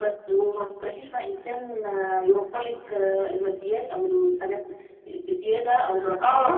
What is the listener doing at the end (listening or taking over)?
taking over